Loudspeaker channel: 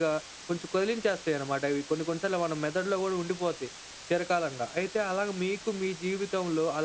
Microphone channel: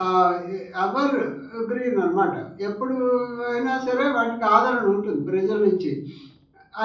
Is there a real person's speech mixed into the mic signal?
Yes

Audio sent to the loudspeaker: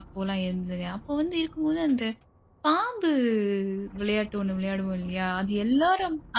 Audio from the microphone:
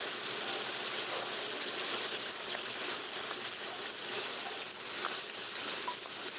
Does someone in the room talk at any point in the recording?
No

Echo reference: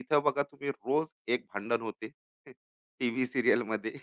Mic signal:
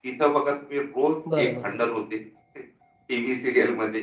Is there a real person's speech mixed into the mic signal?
Yes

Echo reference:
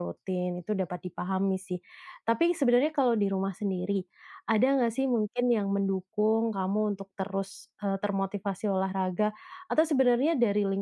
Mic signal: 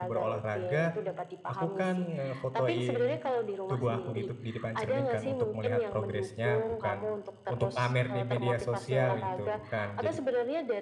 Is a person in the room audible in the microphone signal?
Yes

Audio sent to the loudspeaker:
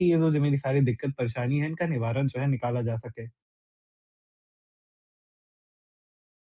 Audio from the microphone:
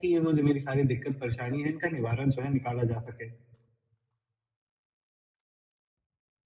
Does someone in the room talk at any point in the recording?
No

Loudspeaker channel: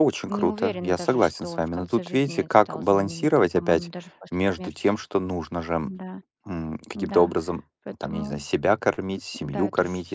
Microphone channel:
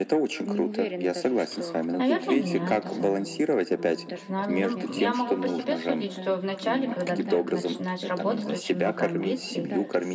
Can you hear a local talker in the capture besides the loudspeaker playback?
Yes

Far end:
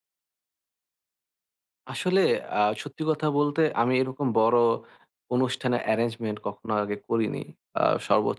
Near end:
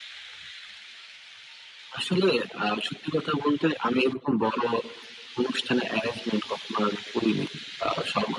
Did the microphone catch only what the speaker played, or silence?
Yes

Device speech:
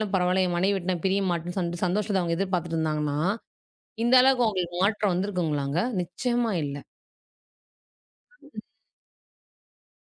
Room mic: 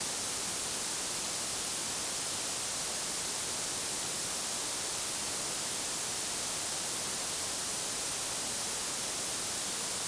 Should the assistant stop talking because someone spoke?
No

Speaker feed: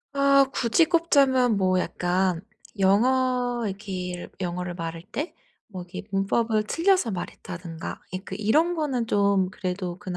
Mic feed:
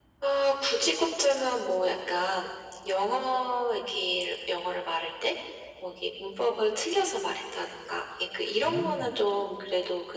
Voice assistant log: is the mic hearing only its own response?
No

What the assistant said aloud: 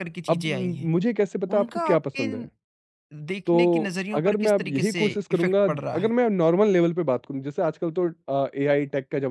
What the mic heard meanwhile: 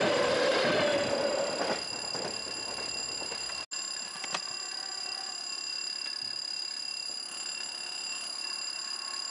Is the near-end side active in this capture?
No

